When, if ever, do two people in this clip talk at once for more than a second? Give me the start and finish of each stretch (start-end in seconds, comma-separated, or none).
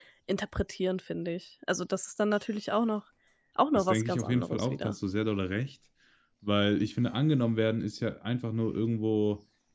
3.7-5.0